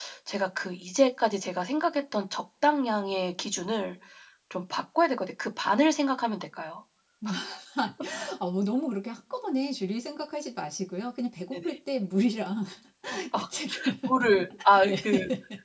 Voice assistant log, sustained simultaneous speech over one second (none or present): none